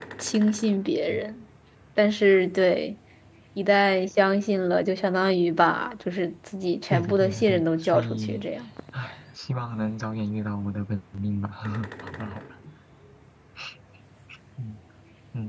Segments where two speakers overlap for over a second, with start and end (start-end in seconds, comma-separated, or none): 6.9-8.4